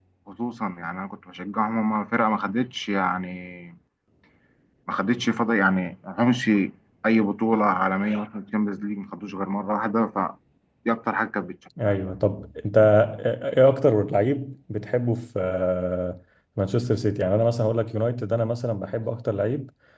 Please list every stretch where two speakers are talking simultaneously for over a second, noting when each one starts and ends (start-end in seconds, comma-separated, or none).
none